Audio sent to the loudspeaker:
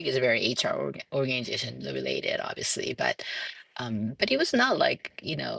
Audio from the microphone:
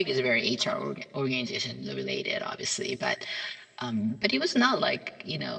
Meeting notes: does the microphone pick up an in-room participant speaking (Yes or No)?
No